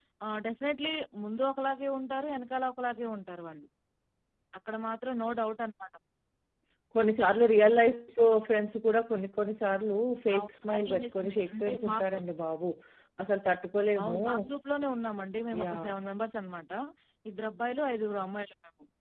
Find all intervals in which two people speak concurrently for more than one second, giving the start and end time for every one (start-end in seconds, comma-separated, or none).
10.3-12.0